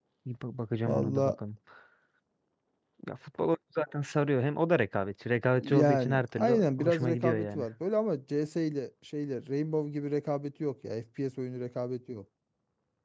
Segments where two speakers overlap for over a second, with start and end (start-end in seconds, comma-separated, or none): 5.6-7.6